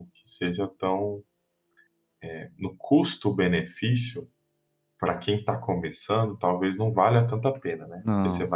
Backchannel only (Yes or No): Yes